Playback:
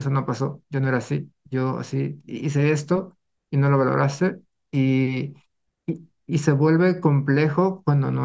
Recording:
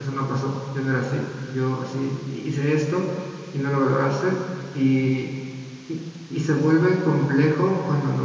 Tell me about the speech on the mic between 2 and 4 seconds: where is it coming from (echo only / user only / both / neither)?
echo only